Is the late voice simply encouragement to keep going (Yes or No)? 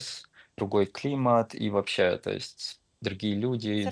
No